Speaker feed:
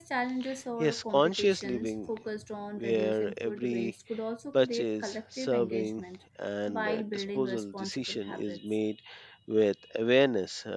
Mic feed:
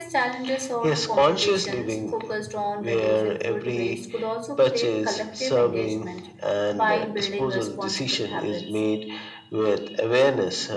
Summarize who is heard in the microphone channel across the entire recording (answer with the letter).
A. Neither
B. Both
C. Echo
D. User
C